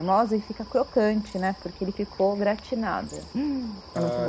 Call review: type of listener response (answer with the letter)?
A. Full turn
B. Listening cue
A